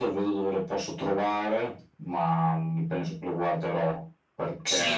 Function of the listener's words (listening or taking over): taking over